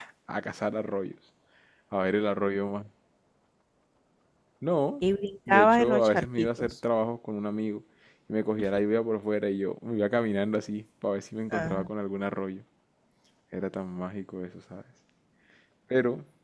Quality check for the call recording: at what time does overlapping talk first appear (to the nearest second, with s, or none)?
5 s